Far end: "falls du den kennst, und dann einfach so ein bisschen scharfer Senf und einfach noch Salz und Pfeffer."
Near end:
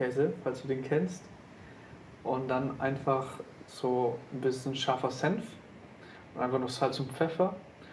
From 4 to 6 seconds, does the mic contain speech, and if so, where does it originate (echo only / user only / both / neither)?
echo only